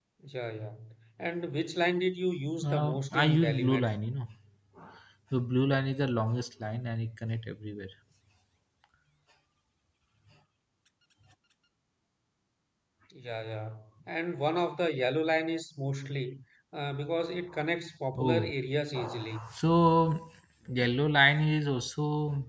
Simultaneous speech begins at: 2.6 s

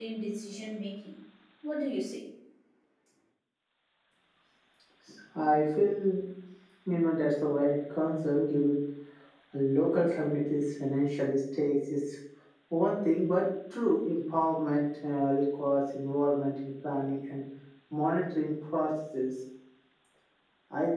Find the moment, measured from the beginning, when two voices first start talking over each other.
none

